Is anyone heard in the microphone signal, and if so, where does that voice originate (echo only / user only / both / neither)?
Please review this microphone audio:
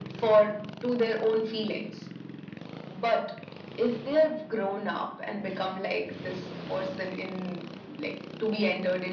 echo only